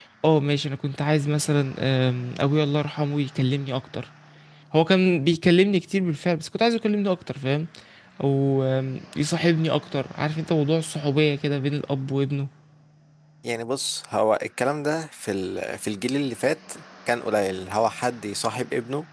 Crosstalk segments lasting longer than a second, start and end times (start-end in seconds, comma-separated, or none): none